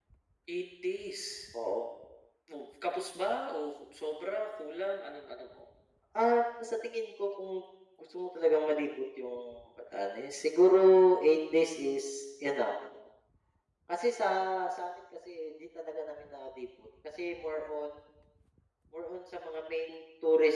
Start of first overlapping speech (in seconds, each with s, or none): none